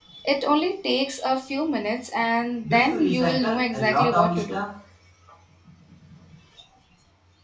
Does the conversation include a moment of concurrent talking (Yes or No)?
Yes